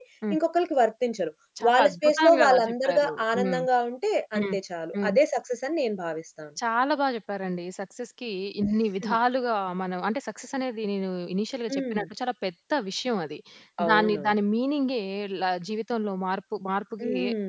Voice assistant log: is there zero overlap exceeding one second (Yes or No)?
No